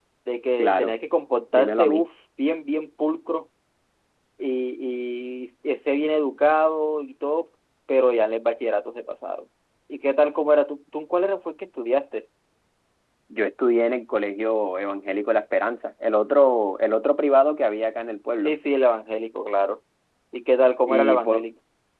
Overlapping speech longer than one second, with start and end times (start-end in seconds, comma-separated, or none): none